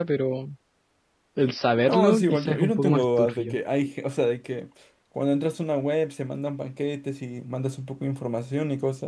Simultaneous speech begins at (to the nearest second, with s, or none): 2 s